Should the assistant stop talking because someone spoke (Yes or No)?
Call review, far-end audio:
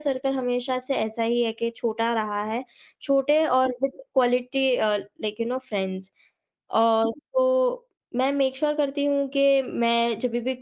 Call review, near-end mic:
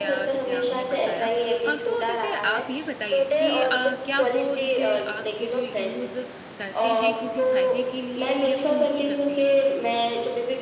Yes